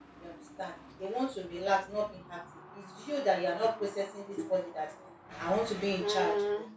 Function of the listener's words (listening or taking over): listening